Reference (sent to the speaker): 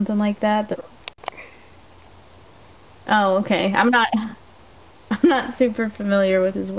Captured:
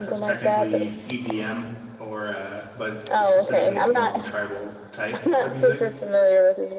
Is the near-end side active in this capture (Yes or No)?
Yes